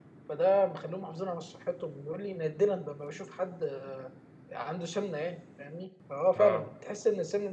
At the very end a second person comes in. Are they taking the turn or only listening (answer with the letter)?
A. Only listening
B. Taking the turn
A